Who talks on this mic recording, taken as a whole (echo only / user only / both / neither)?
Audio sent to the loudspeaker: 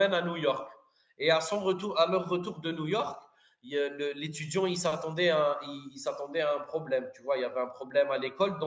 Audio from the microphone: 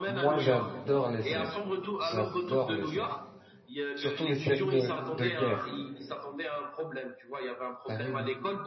both